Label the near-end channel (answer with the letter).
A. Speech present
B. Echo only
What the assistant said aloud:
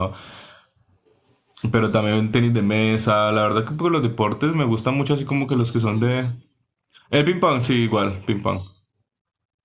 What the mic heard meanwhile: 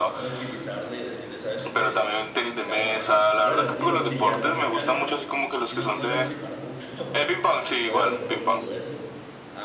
A